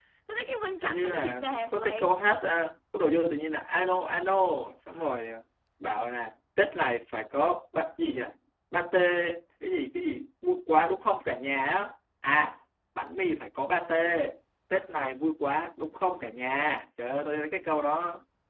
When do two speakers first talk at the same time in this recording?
0.8 s

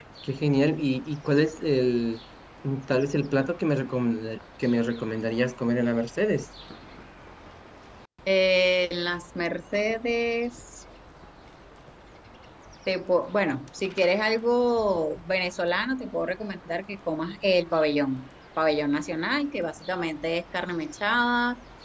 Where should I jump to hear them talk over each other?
none

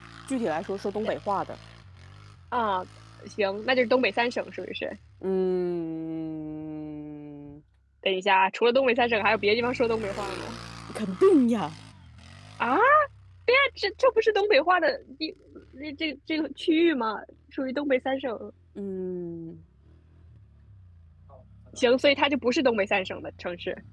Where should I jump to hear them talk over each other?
none

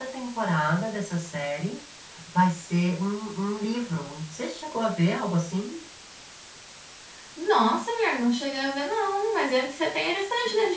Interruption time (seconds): none

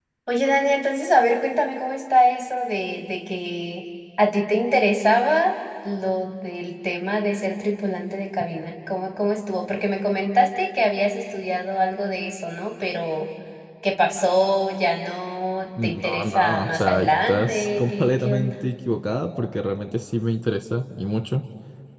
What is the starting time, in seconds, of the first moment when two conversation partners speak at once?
15.8 s

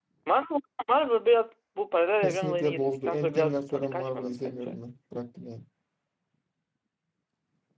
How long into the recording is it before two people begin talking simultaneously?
2.2 s

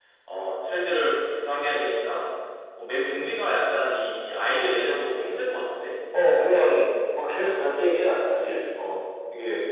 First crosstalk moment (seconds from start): none

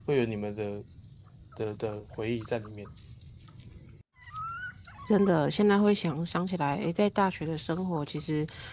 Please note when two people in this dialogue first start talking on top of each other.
none

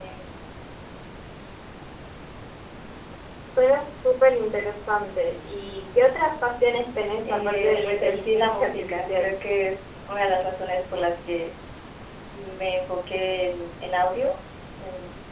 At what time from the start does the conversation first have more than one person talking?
7.2 s

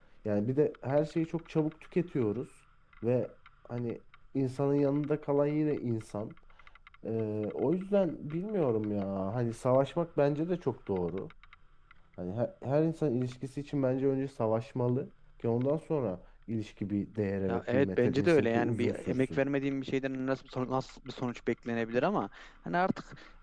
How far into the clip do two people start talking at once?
17.5 s

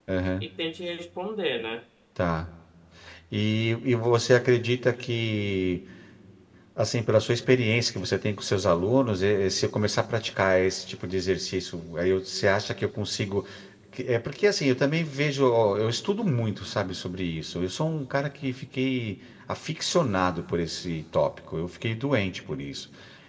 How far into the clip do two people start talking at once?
none

